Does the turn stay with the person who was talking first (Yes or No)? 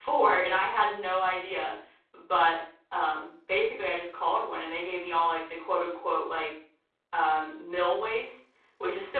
Yes